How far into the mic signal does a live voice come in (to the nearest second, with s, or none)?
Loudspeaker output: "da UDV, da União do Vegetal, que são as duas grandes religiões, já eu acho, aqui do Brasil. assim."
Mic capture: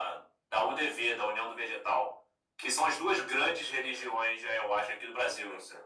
none